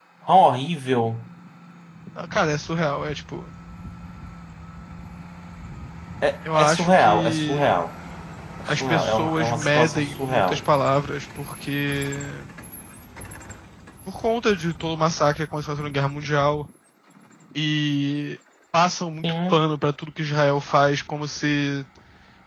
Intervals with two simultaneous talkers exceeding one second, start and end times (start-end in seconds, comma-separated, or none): 6.6-7.9, 8.7-10.6